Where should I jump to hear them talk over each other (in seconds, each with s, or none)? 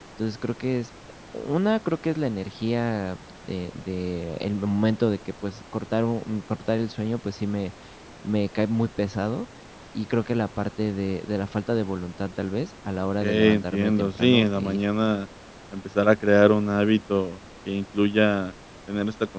13.2 s